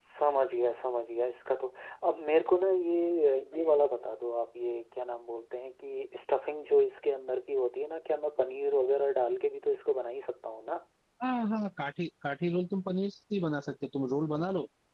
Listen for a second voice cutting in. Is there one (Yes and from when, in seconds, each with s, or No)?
No